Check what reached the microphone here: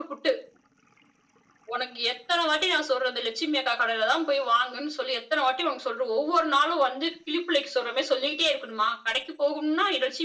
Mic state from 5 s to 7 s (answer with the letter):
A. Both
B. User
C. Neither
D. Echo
D